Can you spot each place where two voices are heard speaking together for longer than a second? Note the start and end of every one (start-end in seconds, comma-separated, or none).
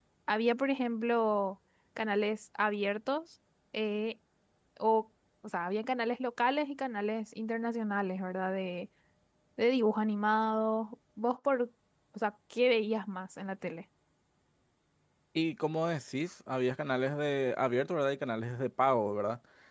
none